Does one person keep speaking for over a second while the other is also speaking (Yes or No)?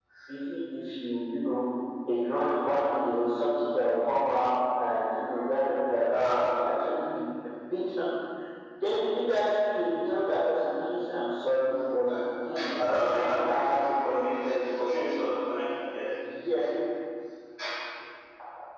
Yes